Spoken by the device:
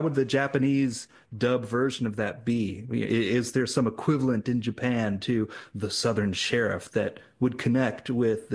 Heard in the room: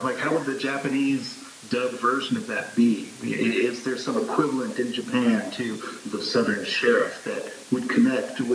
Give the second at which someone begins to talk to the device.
none

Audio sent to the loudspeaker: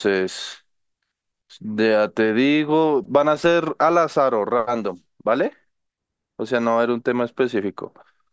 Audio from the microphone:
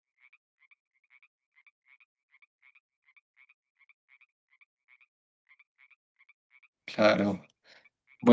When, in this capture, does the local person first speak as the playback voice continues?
6.8 s

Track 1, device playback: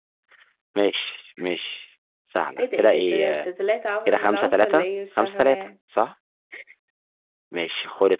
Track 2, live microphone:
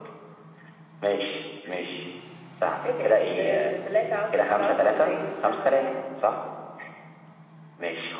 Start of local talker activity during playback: none

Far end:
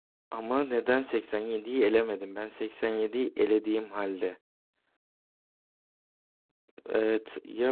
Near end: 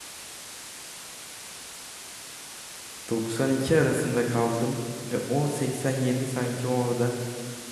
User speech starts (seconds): 3.1 s

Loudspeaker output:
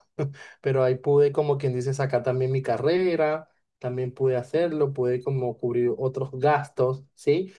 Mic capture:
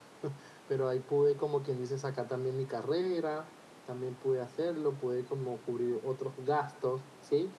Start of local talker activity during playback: none

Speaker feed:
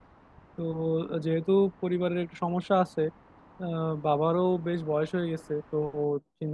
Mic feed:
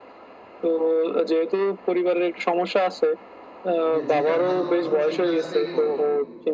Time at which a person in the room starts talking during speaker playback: 3.9 s

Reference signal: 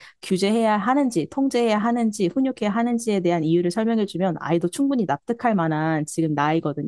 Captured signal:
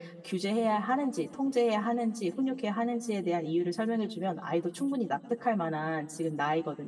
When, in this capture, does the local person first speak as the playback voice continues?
none

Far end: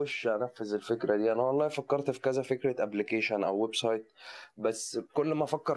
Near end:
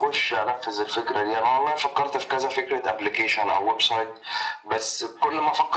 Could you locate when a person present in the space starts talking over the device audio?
none

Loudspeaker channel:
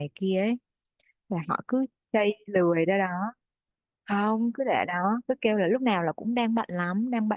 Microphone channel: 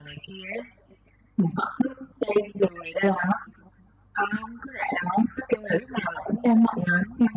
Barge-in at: none

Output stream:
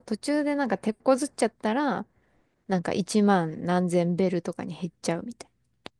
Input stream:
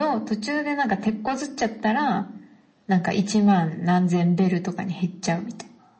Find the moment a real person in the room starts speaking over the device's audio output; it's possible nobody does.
none

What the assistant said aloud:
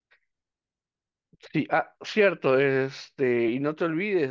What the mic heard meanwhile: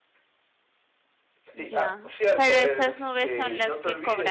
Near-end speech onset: 1.5 s

